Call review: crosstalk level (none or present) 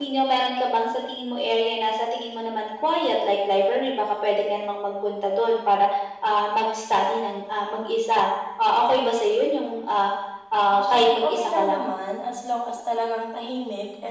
present